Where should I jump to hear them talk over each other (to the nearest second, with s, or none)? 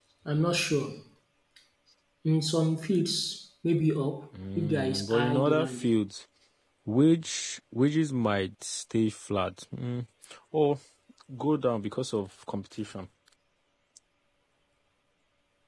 4 s